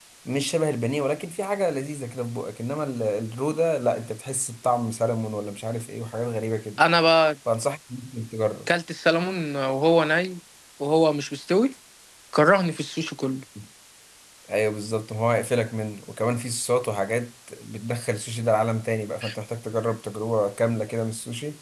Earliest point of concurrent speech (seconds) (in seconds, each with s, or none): none